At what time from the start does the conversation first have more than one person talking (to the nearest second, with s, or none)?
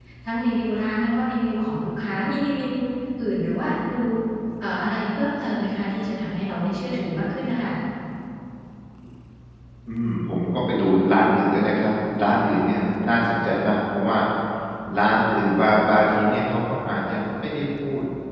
none